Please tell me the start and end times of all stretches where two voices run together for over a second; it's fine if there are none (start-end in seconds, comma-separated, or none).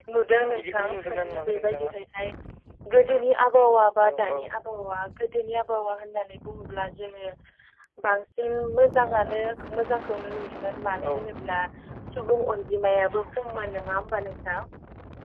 0.5-1.9